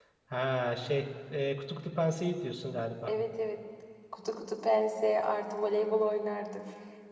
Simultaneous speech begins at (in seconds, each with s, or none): none